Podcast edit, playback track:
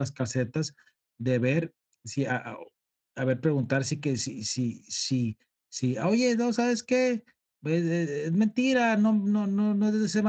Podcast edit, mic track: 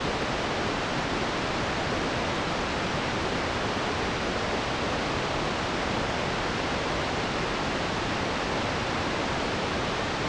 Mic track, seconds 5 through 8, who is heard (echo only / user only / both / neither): neither